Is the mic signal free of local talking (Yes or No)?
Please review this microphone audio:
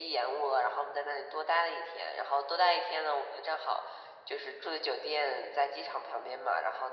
Yes